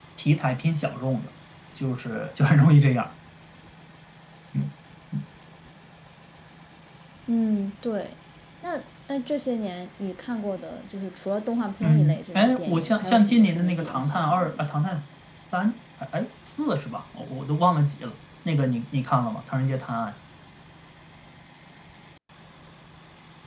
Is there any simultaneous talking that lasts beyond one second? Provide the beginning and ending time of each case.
11.8-14.7

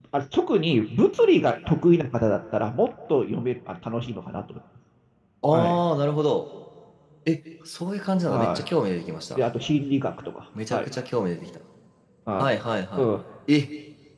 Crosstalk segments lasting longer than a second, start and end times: none

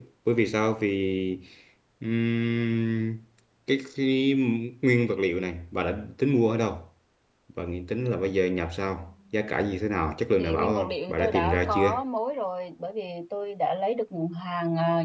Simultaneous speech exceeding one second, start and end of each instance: 10.4-11.9

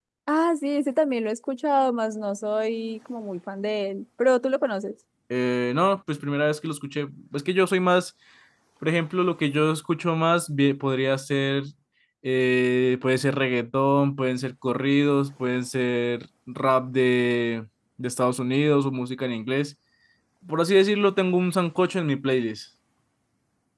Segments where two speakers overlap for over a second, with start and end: none

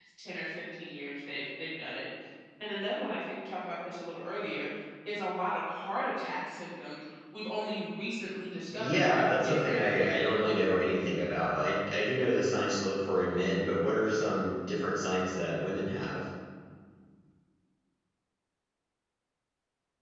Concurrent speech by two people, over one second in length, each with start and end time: 8.8-10.7

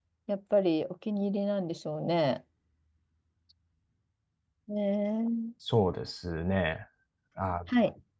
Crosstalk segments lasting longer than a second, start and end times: none

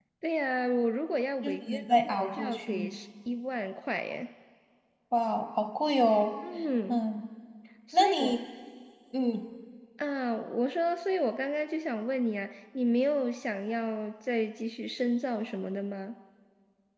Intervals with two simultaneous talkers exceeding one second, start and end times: 1.4-2.9

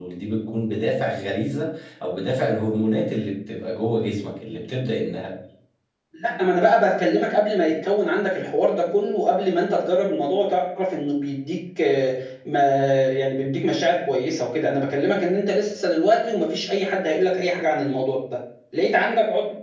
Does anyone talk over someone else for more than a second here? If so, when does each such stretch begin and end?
none

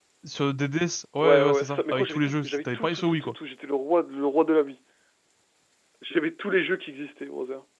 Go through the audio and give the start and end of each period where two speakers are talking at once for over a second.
1.2-3.3

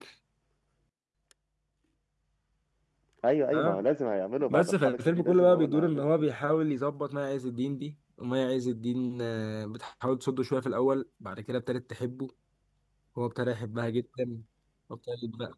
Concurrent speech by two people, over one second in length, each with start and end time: 4.5-6.1

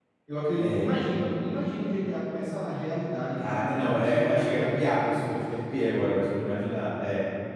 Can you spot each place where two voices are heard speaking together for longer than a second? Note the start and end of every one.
3.4-5.3

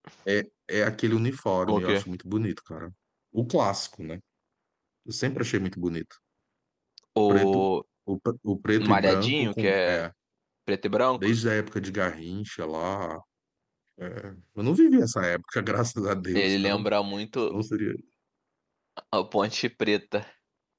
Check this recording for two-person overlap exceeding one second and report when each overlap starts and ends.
8.8-10.1

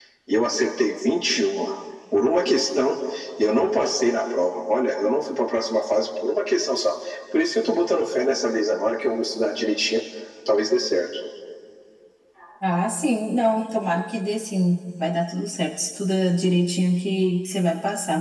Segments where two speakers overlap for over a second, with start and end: none

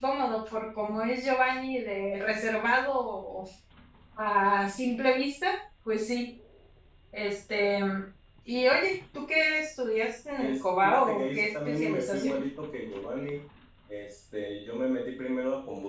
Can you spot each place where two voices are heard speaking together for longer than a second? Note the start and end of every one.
10.4-12.4

